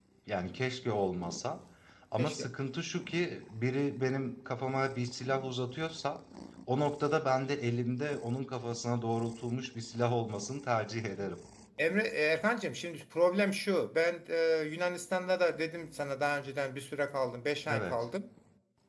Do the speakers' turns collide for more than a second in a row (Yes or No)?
No